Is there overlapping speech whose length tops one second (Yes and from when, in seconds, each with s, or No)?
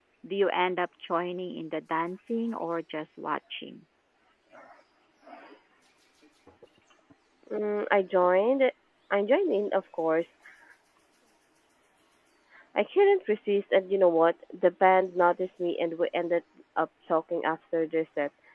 No